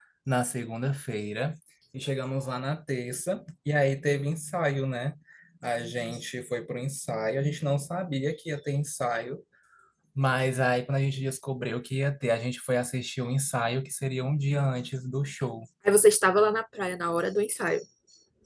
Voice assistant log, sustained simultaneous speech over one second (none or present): none